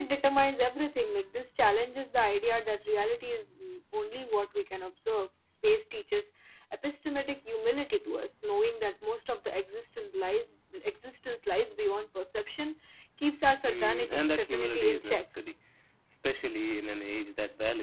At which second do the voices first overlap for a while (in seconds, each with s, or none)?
13.7 s